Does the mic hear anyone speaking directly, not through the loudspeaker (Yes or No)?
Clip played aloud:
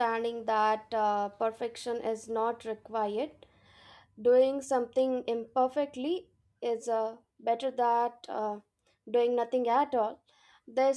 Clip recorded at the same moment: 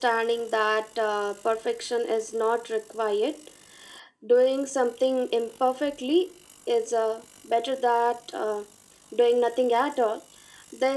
No